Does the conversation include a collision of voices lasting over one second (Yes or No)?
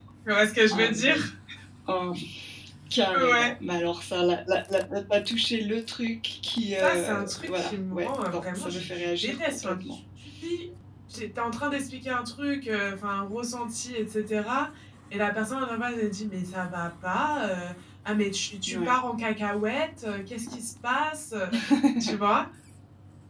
Yes